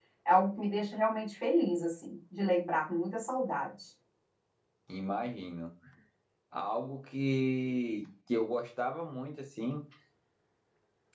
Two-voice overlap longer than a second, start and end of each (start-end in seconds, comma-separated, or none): none